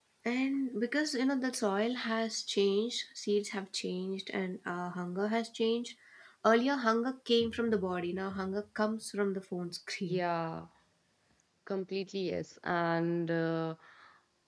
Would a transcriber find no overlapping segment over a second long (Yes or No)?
Yes